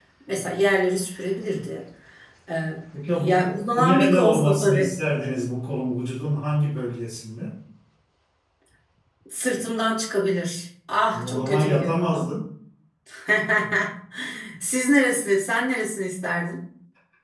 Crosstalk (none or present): present